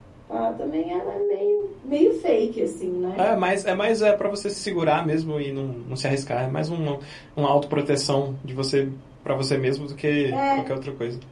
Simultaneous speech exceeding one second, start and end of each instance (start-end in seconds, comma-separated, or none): none